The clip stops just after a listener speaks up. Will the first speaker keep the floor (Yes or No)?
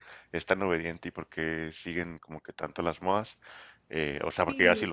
Yes